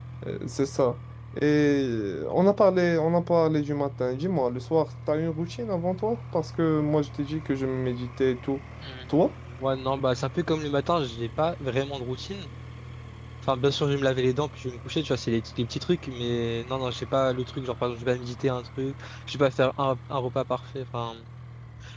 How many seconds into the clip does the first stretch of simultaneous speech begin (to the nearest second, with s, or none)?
none